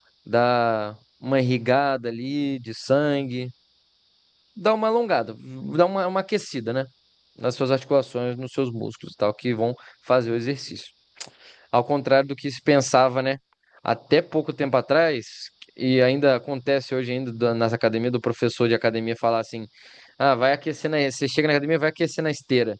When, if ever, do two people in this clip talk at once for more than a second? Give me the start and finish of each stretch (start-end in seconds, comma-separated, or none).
none